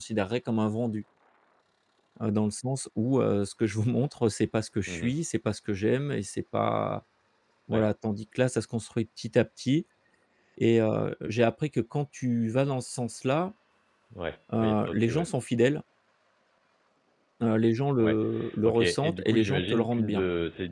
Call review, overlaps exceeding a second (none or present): present